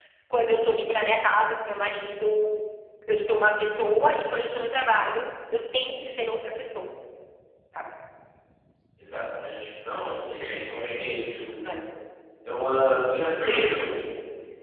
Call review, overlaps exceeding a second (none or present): none